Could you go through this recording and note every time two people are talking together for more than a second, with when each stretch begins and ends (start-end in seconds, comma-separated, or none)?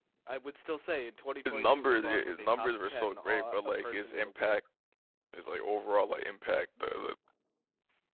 1.4-4.6